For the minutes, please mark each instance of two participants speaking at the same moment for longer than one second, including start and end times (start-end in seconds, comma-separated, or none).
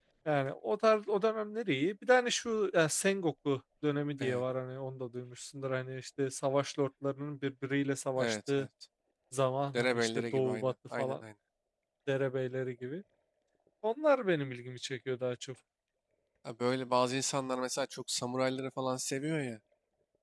9.7-11.2